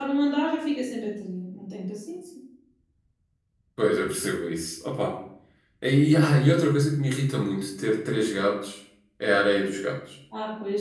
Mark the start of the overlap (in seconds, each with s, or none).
none